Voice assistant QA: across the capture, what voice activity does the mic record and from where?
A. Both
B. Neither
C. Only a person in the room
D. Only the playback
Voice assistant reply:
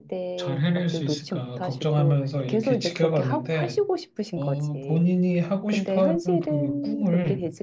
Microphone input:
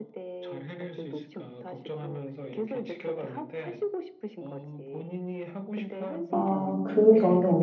A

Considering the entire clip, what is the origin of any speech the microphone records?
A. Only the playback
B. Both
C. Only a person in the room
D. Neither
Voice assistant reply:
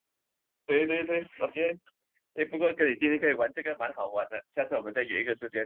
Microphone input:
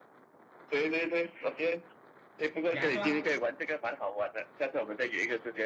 B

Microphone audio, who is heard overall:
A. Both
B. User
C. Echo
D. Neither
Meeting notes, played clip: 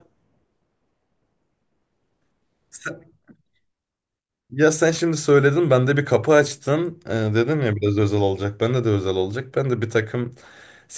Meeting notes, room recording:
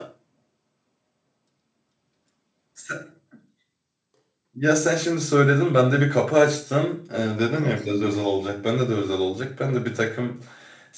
A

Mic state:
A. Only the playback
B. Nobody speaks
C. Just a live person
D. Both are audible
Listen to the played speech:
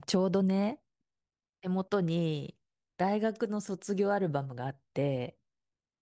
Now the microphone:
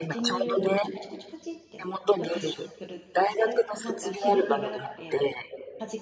D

